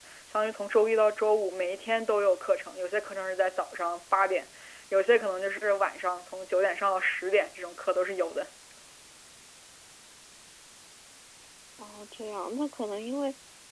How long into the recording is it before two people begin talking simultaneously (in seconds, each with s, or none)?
none